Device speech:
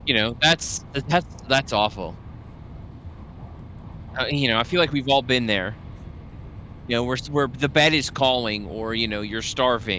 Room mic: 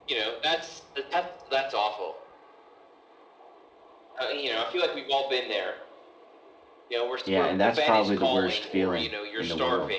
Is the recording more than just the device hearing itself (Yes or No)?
Yes